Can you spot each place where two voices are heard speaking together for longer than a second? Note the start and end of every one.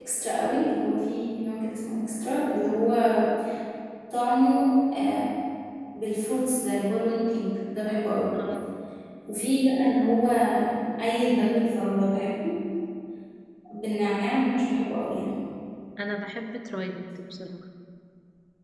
none

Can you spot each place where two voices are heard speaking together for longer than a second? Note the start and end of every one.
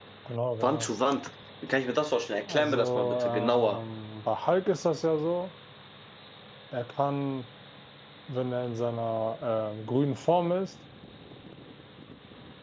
2.5-3.8

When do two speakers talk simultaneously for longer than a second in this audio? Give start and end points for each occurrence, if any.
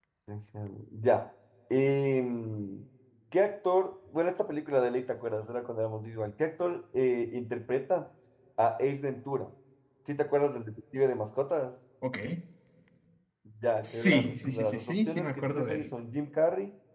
13.8-15.9

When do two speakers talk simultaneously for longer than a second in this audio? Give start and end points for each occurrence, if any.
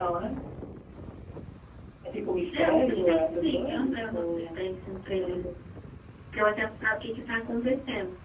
2.5-4.6

